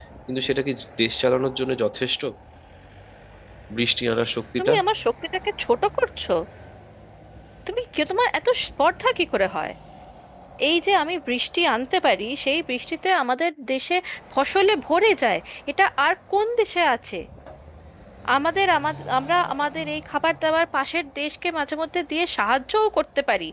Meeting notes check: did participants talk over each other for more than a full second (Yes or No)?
No